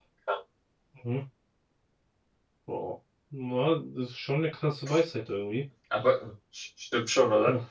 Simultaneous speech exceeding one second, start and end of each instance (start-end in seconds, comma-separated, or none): none